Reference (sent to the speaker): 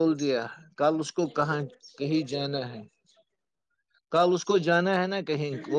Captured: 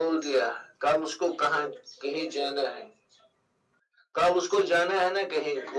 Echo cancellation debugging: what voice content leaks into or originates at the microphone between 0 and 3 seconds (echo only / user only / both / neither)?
echo only